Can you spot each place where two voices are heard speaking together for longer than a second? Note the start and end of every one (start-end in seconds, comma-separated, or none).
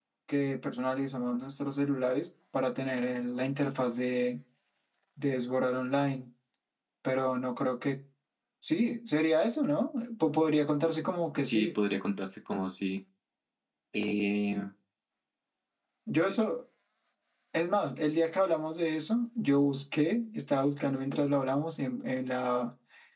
none